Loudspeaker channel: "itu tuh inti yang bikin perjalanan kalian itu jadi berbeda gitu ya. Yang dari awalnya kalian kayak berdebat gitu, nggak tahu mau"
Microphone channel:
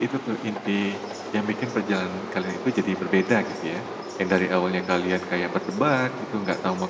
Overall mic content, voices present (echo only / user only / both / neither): echo only